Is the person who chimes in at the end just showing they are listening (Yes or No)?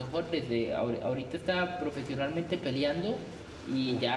Yes